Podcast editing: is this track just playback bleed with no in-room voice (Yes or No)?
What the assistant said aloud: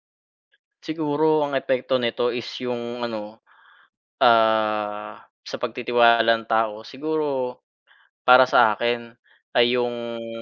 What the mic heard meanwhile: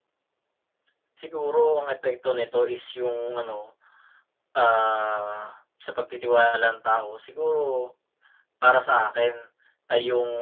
Yes